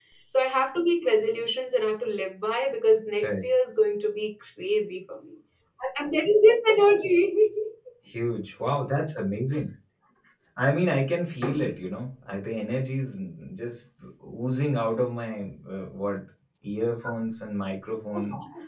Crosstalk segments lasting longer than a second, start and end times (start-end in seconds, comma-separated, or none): none